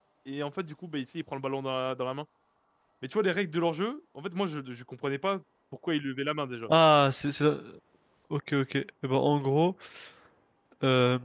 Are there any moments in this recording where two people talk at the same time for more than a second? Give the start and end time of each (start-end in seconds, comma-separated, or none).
none